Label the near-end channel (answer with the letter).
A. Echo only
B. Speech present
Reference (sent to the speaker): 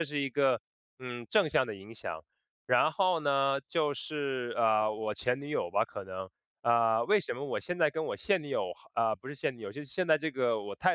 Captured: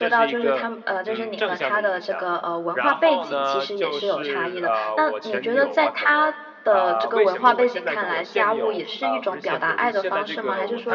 B